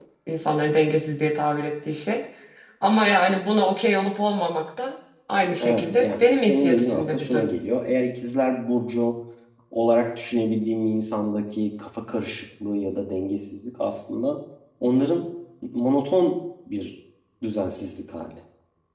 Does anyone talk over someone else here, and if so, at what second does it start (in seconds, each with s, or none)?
5.6 s